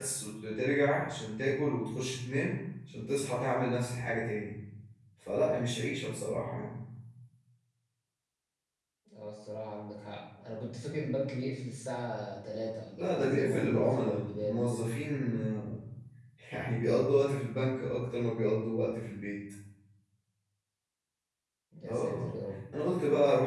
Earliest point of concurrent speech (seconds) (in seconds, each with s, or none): 12.9 s